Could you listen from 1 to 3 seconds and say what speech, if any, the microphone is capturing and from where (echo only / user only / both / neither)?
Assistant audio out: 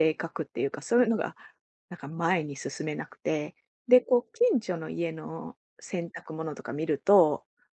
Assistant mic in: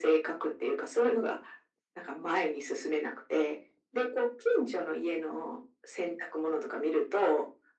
echo only